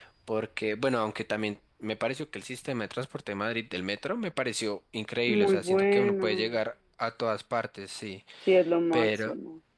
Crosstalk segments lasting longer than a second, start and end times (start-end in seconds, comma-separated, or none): 5.3-6.6